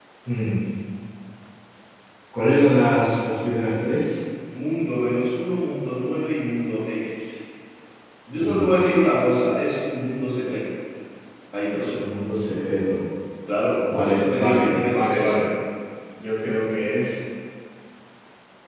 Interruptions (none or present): present